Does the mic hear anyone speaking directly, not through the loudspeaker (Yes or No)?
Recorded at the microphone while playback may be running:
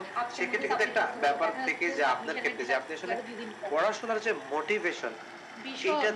No